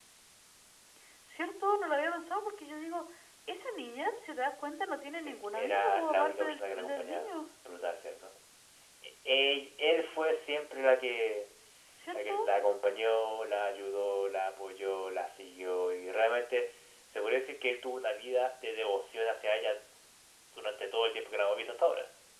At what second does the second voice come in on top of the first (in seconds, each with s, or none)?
5.2 s